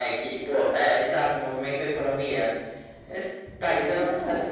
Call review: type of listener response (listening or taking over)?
listening